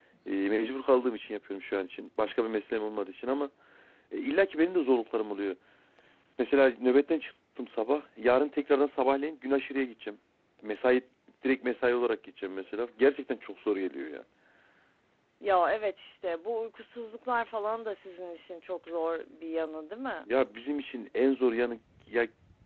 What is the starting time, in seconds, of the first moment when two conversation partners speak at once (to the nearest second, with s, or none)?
none